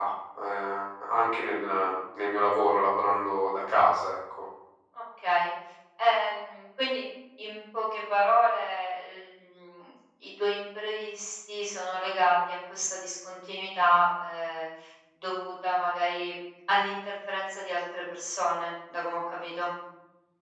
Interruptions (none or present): none